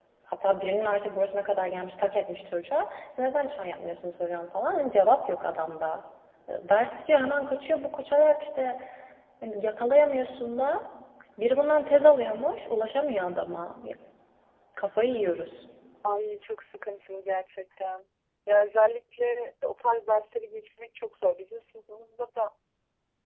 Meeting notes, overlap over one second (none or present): none